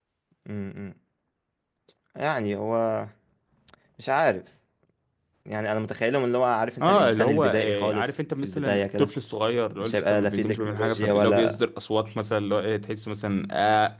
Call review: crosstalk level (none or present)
present